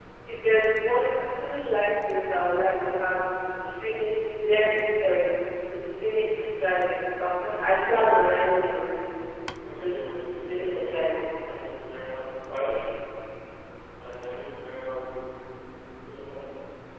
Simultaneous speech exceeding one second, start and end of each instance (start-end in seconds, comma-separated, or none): 9.8-11.2